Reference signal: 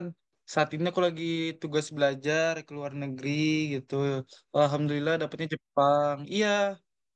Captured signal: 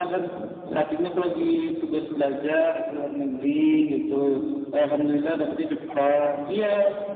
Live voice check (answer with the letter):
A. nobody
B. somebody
A